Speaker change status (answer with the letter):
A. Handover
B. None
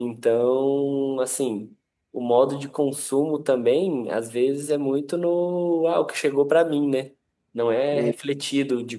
B